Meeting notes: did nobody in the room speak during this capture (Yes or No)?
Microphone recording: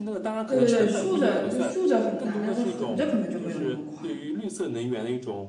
No